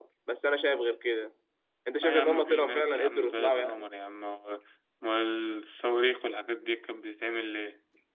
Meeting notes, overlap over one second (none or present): present